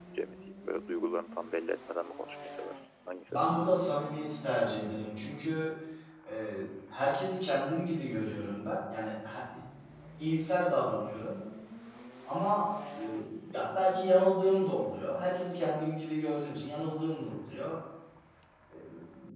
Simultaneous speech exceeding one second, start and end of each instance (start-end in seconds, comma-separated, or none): none